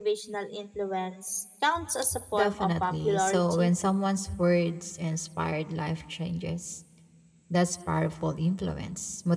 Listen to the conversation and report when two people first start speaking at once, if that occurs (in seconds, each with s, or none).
2.3 s